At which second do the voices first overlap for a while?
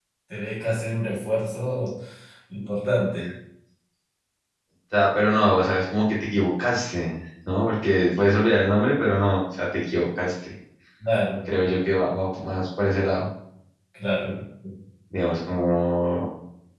none

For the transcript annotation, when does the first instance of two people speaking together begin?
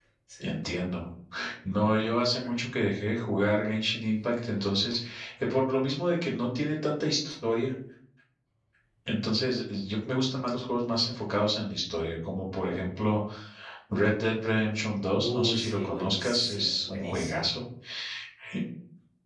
15.2 s

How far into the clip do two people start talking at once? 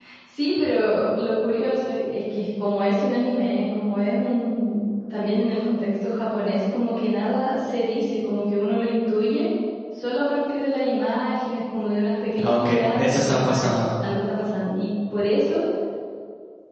12.4 s

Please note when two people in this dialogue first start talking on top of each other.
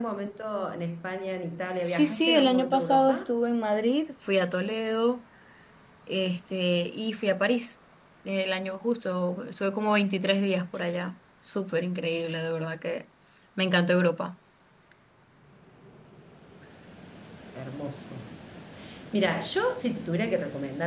1.8 s

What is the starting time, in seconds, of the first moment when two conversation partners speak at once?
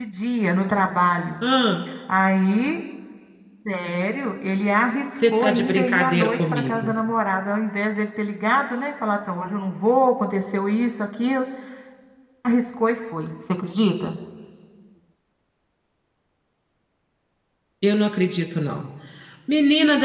5.1 s

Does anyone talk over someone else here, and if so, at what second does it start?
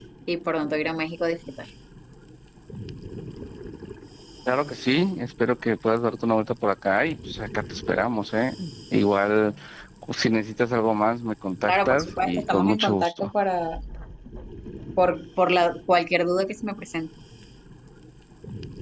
11.7 s

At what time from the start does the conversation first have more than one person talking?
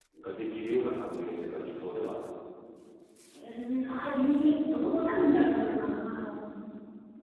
none

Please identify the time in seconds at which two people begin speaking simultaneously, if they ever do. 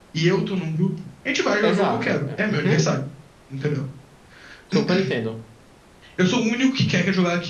1.6 s

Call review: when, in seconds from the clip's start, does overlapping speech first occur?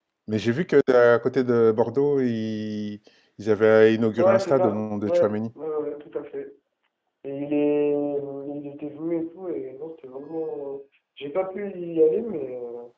4.2 s

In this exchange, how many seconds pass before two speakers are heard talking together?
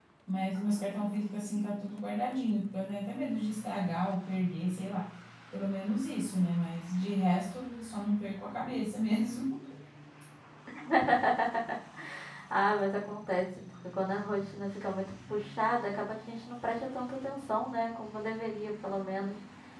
none

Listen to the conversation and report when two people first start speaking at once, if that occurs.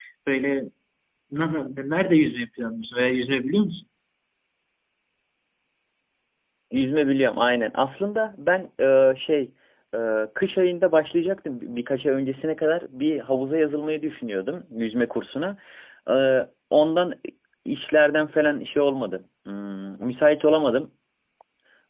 none

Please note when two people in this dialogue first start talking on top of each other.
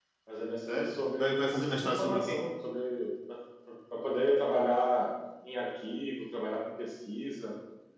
0.7 s

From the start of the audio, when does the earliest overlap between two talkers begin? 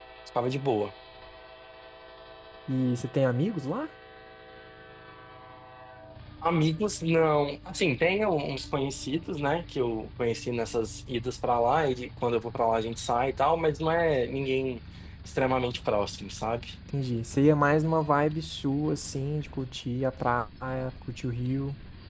none

